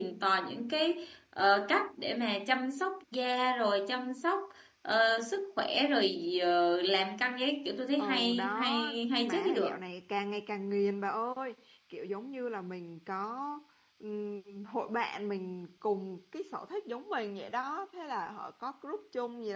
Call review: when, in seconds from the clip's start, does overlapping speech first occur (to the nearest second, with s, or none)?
8 s